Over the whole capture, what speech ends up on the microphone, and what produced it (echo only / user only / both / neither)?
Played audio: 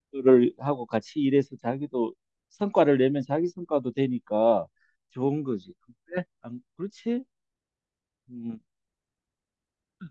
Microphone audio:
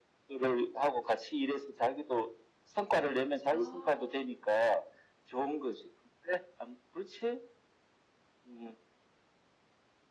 both